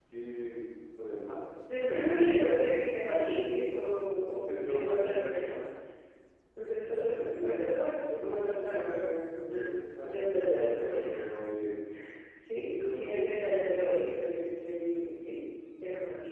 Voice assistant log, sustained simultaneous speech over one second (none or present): present